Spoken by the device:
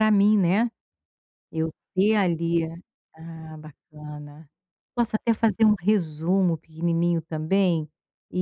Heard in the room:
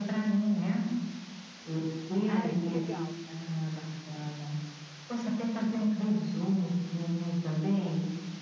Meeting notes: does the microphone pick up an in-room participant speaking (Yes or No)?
Yes